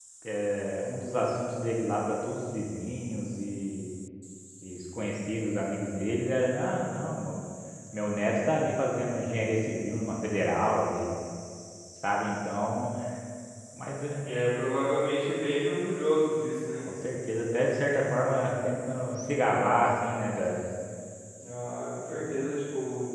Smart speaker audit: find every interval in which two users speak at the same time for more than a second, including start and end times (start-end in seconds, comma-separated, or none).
none